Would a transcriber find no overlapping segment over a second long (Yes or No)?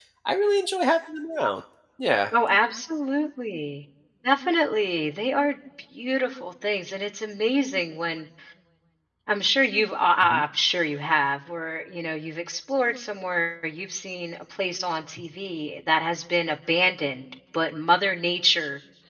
Yes